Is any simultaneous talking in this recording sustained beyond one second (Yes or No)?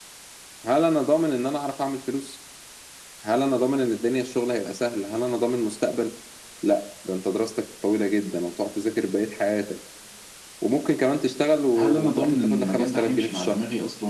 Yes